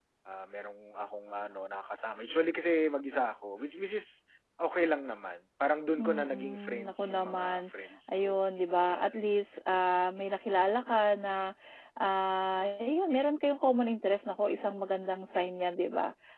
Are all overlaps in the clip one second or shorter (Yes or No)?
No